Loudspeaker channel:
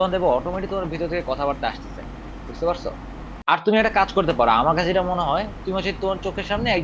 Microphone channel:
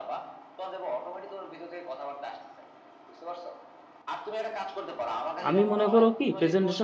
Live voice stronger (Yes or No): Yes